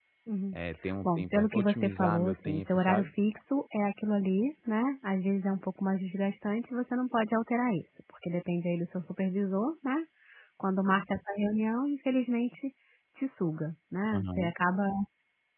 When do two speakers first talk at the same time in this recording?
1.0 s

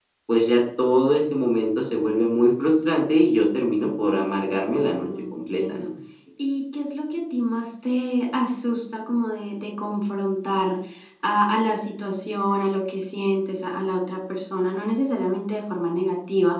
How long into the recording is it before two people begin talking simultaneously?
4.5 s

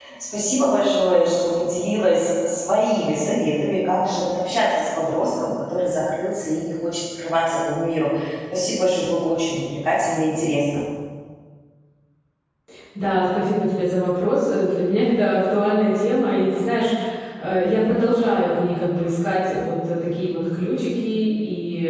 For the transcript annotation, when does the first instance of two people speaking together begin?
none

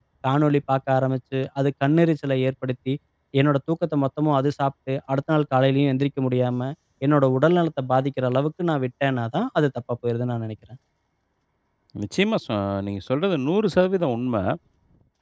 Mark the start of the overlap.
none

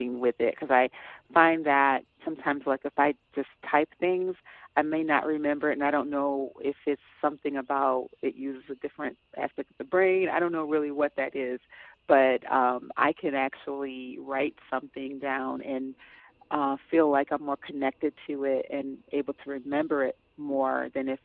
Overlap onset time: none

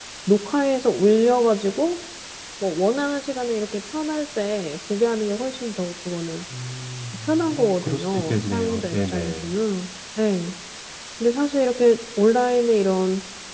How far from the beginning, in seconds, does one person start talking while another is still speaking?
7.3 s

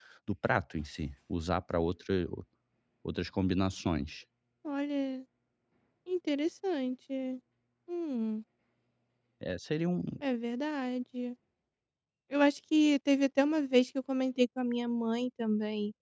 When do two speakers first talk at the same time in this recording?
none

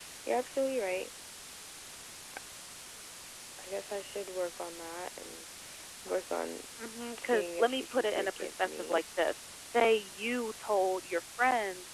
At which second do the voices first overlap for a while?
7.2 s

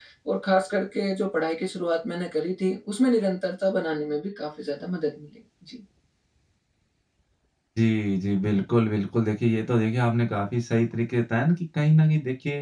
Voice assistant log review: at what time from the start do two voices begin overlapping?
none

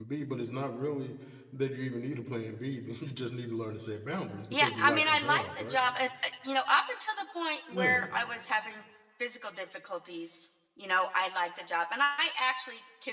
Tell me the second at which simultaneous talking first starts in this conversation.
4.5 s

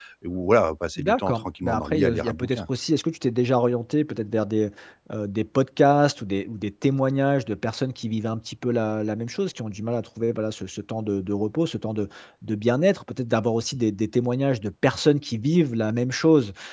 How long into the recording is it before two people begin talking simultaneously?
1.0 s

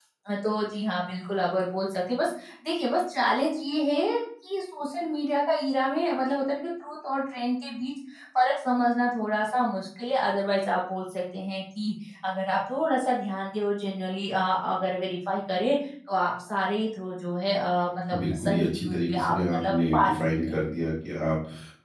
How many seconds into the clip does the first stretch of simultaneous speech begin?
18.1 s

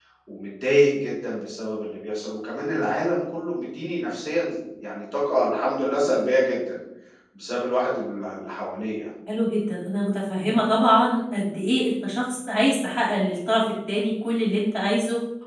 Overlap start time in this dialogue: none

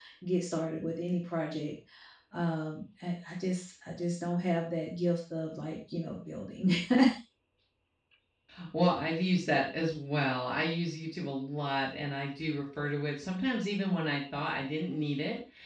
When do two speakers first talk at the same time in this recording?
none

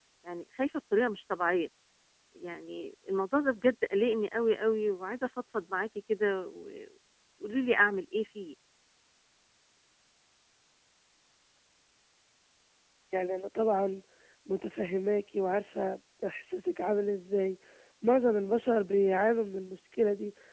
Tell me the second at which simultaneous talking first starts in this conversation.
none

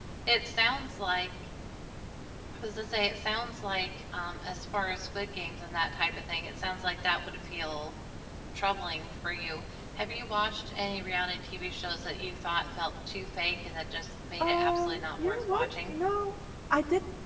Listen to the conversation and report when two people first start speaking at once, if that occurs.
14.4 s

